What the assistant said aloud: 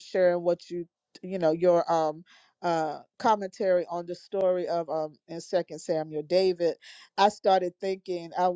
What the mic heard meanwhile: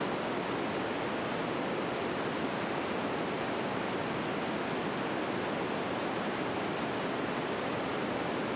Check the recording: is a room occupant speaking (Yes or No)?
No